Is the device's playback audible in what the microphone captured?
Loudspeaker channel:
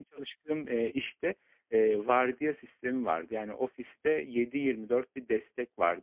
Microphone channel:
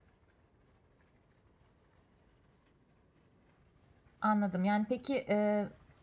No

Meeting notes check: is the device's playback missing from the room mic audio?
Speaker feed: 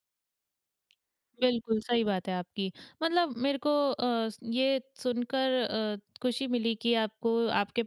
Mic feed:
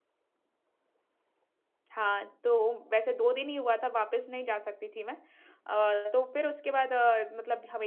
Yes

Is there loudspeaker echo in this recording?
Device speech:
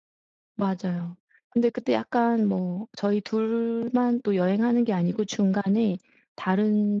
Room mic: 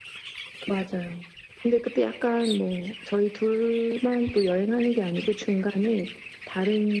Yes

